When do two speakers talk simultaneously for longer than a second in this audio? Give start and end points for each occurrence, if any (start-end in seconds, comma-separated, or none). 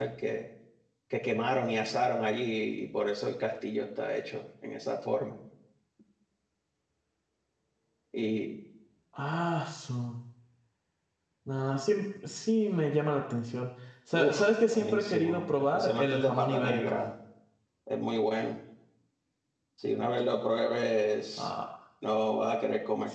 14.1-16.8